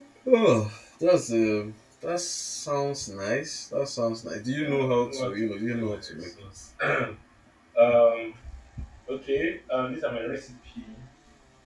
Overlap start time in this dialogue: 4.6 s

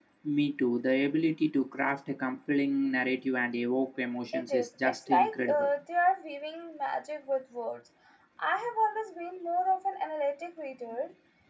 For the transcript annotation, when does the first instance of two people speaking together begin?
4.3 s

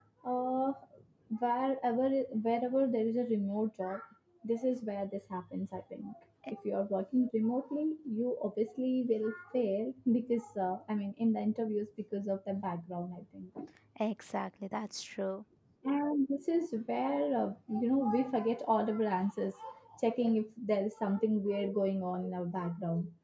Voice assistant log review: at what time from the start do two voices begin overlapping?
none

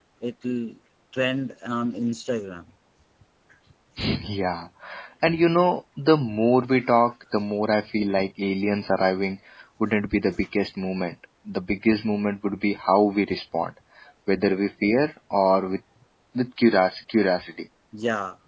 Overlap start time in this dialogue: none

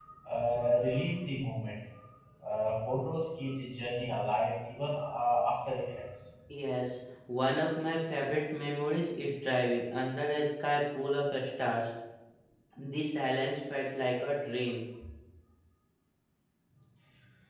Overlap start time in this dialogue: none

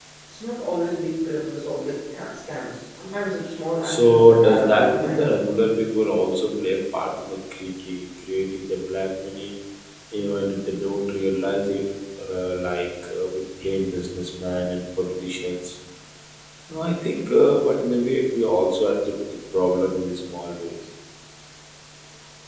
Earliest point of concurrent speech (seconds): 3.8 s

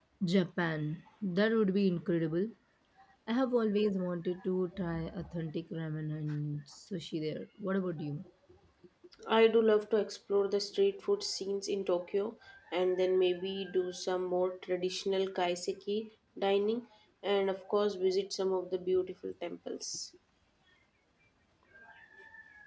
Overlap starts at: none

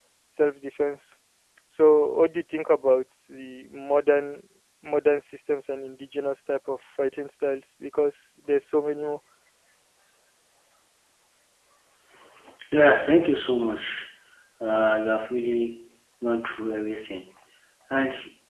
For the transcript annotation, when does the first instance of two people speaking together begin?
none

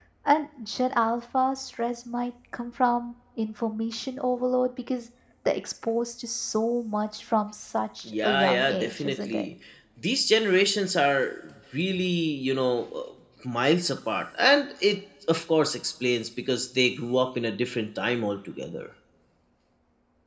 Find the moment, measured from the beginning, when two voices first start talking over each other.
8.1 s

